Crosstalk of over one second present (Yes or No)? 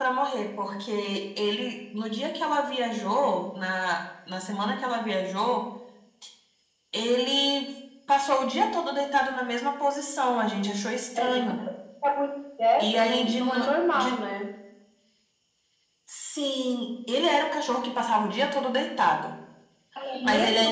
Yes